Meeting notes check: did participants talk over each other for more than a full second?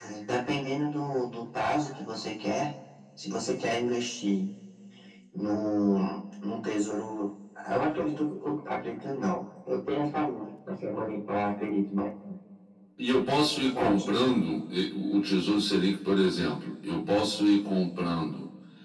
No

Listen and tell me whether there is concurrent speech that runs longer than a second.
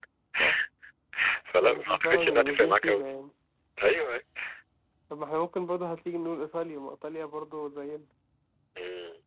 Yes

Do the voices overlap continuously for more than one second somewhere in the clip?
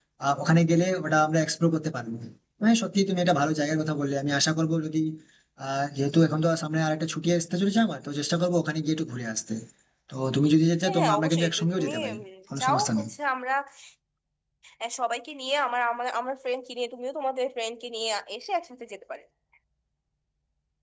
Yes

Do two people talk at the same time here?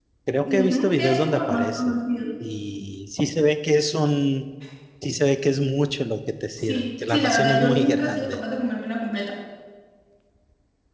Yes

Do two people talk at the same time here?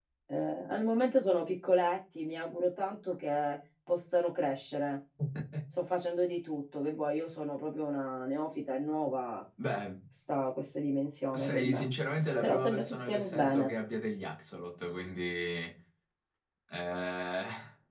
Yes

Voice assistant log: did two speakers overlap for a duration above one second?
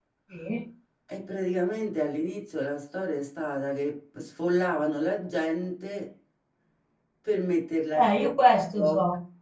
No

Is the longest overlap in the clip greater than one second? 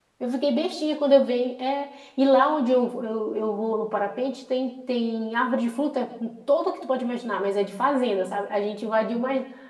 No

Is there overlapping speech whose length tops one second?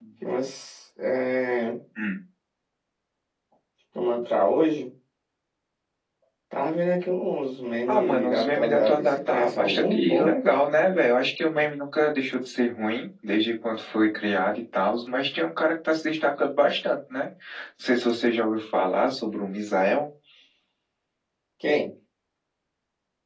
Yes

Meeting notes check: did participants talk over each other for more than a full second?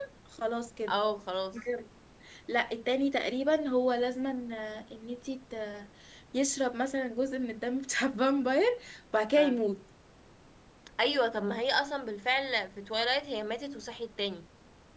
No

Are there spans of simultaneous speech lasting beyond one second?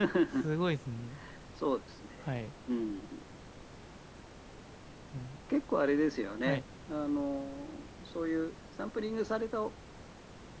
No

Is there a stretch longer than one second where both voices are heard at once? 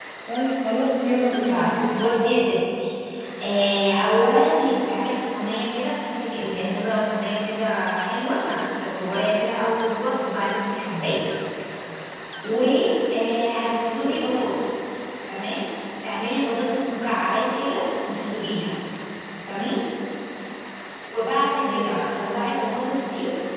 No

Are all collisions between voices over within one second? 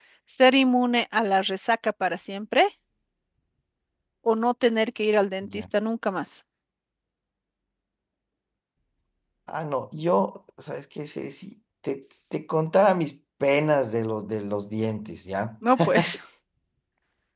Yes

